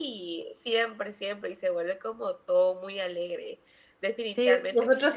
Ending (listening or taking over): taking over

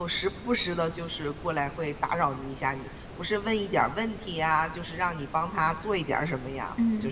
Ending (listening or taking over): taking over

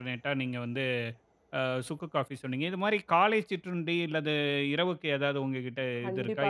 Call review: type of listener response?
taking over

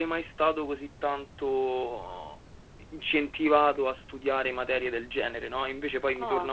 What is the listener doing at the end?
taking over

